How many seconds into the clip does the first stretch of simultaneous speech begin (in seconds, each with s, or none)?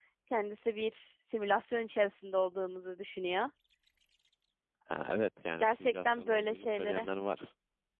5.6 s